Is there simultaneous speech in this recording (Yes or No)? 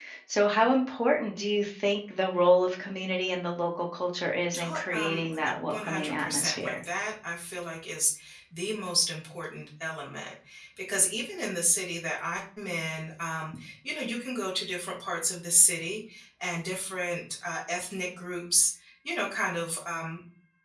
Yes